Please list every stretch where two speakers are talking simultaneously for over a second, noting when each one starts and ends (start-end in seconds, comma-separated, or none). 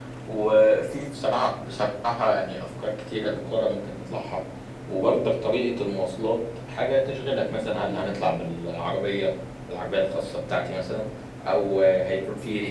none